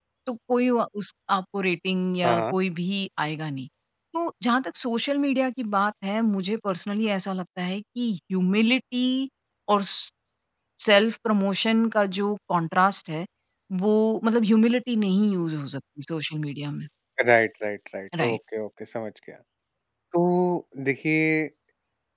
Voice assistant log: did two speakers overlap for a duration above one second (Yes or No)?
No